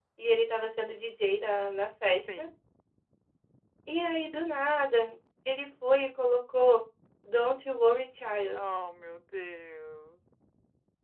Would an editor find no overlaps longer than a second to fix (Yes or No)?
Yes